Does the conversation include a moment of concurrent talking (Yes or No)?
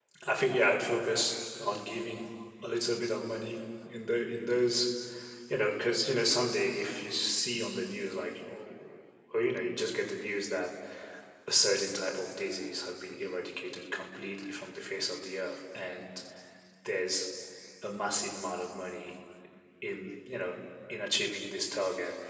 No